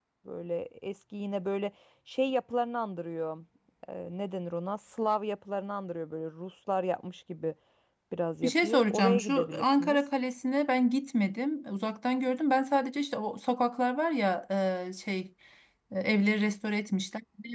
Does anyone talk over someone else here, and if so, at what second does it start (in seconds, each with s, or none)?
8.4 s